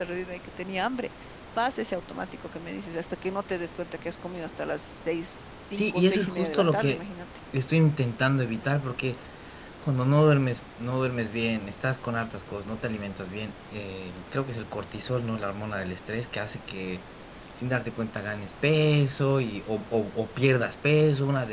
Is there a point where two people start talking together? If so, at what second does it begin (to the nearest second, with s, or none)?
6 s